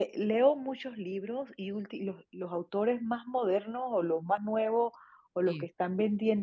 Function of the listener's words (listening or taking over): listening